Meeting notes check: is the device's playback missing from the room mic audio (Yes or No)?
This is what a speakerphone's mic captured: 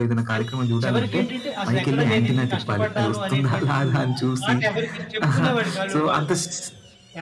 No